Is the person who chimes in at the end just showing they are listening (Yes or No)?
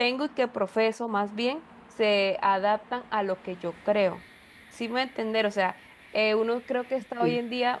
Yes